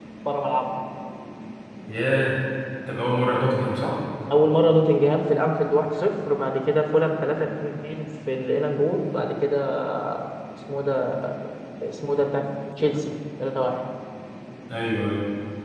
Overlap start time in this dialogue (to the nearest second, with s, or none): none